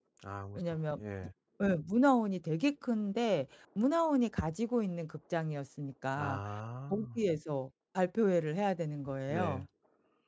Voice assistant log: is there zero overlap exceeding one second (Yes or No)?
Yes